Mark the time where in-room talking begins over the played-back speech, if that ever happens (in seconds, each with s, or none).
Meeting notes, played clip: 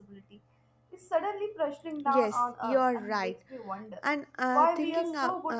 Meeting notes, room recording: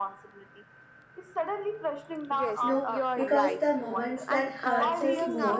2.6 s